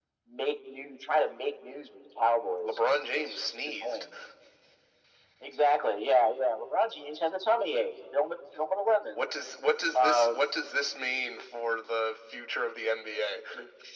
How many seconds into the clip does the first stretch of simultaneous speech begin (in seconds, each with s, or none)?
2.6 s